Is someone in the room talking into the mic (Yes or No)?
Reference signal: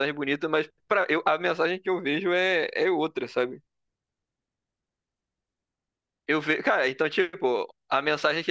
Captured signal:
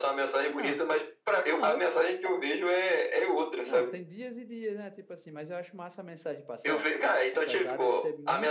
Yes